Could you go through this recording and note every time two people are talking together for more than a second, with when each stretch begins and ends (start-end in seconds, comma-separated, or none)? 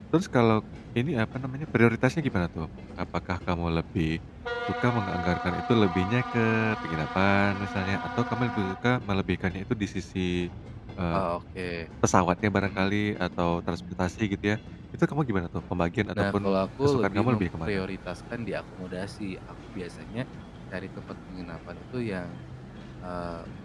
16.2-17.8